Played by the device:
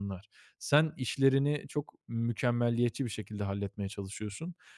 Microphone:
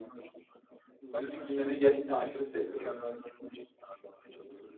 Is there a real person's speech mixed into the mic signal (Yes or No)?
Yes